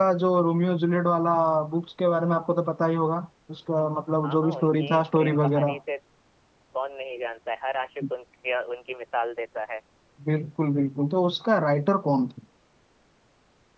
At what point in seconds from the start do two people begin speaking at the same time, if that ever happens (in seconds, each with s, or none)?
4.2 s